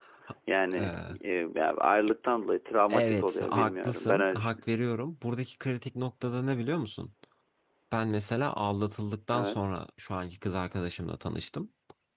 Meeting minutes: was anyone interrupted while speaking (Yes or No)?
Yes